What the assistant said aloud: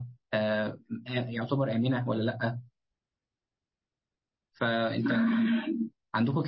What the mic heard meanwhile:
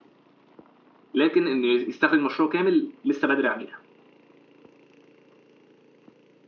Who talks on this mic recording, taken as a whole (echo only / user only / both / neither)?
user only